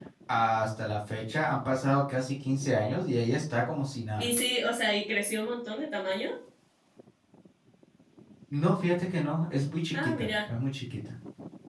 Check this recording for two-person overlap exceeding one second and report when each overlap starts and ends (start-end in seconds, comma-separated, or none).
none